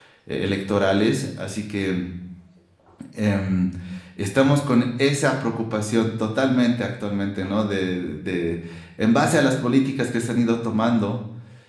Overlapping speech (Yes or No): No